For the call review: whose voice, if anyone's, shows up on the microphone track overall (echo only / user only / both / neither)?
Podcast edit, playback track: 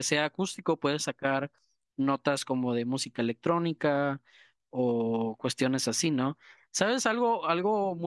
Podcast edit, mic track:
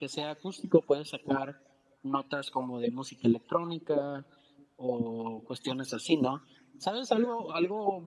echo only